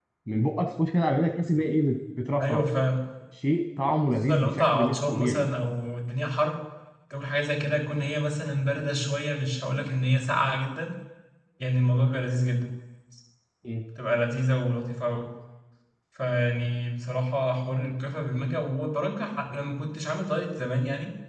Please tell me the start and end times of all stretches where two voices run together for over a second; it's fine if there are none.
4.3-5.5

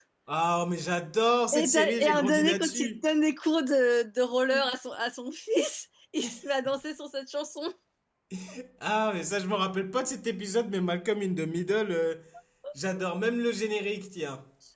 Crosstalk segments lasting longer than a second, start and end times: 1.5-3.0

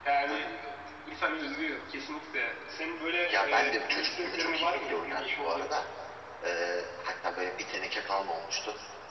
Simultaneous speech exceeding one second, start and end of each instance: 3.3-5.7

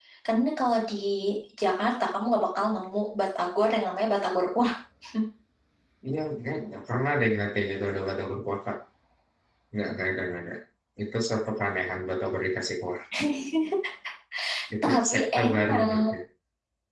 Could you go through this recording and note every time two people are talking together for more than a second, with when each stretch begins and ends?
14.8-16.1

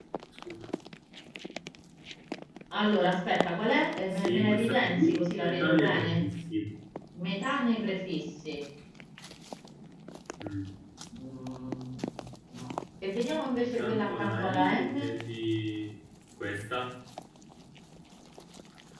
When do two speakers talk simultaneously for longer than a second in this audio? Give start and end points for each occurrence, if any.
4.2-6.2, 13.7-15.1

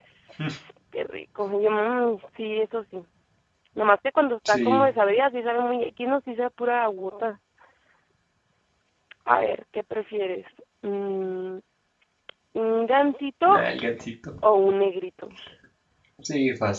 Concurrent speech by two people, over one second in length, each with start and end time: none

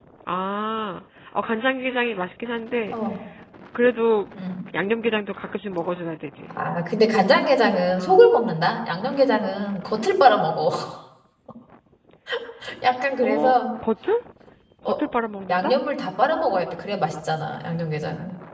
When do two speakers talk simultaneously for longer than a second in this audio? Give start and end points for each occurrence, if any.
none

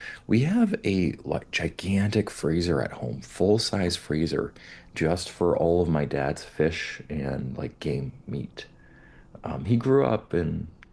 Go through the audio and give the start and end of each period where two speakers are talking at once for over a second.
none

